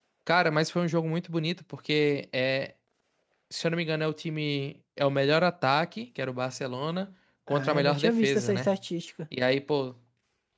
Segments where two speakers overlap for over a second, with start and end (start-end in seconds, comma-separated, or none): 7.5-8.8